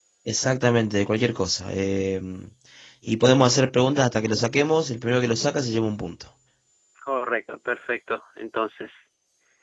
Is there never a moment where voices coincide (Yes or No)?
Yes